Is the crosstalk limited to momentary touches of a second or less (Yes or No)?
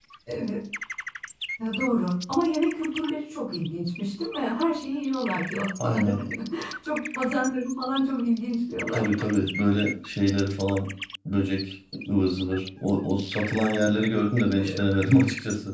Yes